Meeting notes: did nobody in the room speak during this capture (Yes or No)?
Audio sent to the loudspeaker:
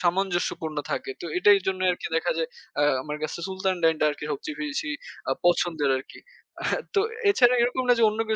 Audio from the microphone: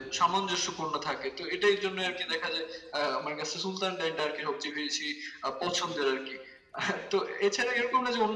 Yes